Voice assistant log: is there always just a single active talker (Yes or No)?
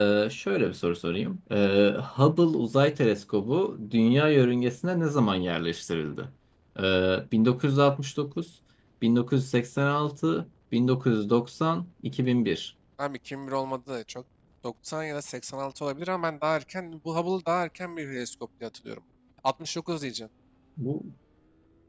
Yes